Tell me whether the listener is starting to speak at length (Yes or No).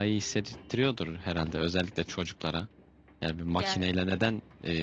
No